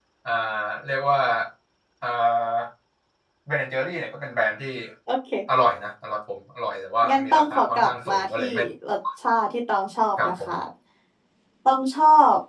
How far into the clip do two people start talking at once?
7.1 s

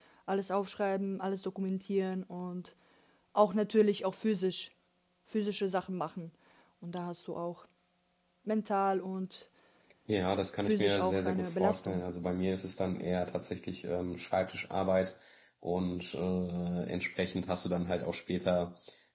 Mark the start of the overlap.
10.6 s

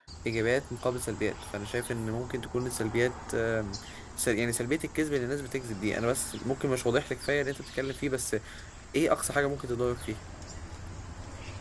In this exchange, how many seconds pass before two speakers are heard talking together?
none

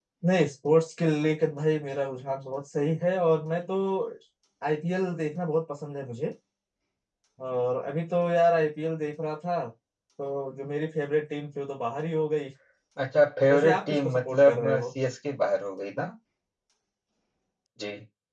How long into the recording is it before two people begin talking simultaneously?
13.5 s

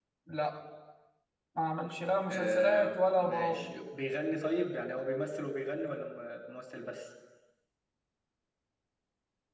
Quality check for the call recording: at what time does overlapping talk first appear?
2.3 s

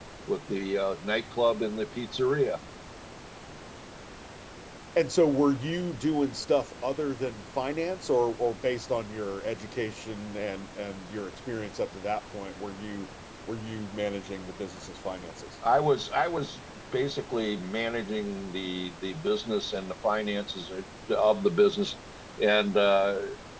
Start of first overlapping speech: none

